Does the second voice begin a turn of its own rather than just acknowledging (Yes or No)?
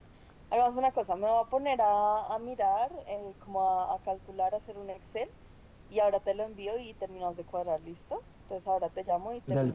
Yes